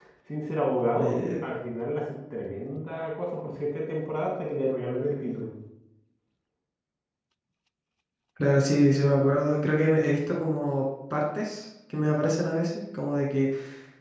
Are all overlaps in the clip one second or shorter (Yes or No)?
Yes